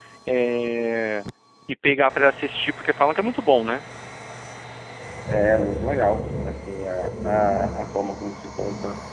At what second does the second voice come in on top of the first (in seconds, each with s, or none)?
none